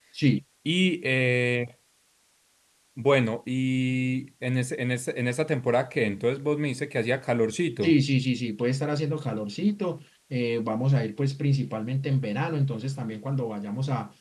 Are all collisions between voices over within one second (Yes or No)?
Yes